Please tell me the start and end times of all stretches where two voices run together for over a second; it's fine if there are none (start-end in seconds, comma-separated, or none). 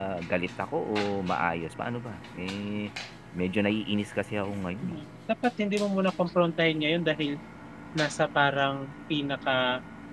none